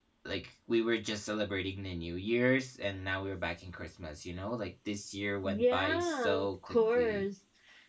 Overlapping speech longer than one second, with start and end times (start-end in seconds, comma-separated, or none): 5.4-7.2